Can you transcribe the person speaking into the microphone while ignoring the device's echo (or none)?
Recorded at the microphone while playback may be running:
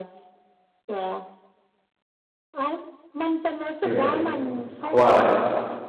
ยูเอสเพราะว่าอะไรอะ